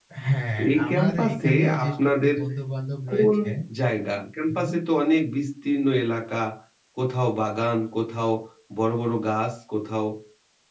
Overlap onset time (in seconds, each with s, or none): 0.6 s